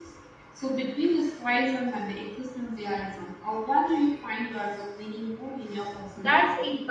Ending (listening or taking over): taking over